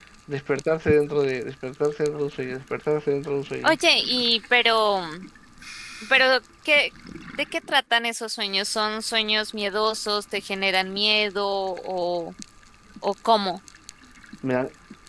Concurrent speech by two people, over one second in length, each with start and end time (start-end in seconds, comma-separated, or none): none